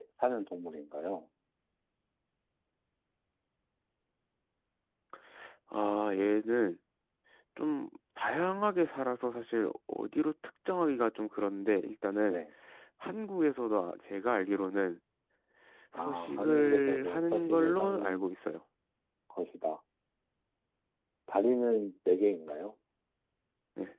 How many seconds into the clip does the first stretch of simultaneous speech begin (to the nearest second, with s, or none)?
16 s